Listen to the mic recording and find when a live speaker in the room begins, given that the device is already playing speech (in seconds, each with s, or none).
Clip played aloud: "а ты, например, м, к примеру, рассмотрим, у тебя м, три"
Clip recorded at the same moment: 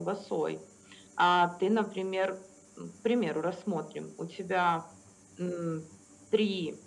none